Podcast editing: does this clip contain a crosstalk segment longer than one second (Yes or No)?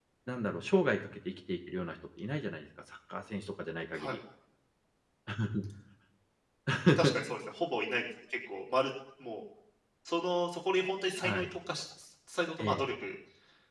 No